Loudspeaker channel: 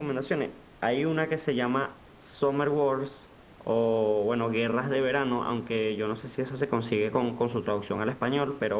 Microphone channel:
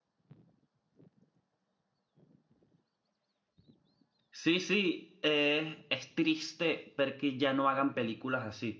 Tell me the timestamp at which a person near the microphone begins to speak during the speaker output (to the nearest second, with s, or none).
4 s